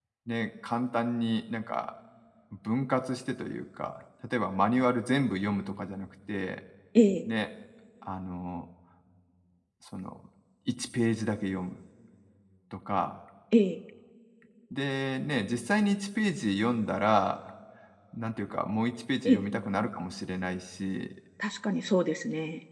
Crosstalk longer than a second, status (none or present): none